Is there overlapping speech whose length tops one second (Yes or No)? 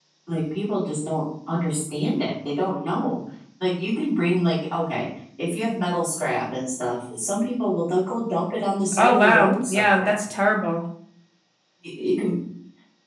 Yes